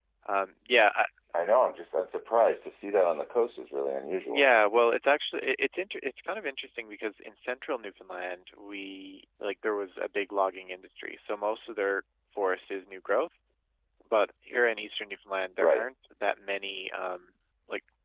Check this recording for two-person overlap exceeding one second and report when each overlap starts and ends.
none

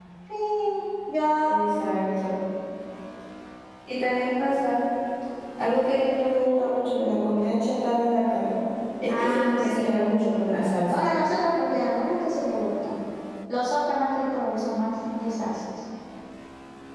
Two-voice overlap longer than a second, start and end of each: 9.1-10.5

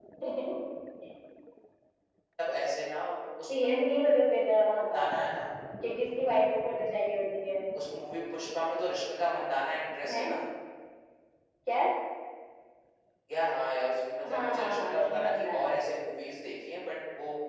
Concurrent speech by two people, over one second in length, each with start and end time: 14.3-15.7

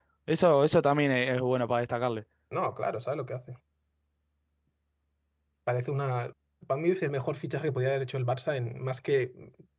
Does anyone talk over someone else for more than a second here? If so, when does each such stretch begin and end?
none

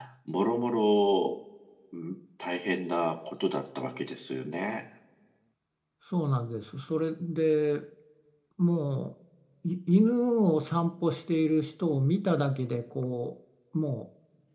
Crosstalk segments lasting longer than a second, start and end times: none

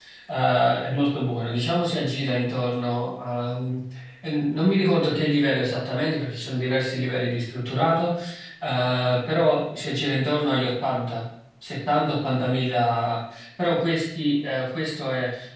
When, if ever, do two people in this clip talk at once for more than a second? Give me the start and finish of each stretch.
none

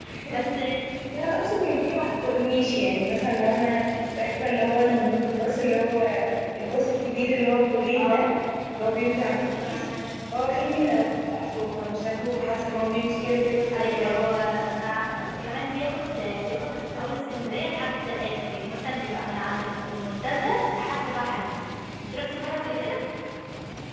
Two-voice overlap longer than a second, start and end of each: none

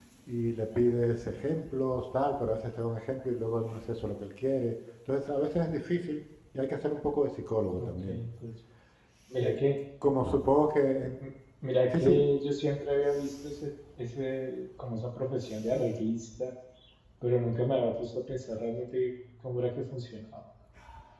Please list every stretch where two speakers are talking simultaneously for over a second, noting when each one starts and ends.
none

